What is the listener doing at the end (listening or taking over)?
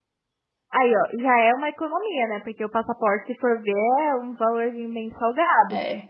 listening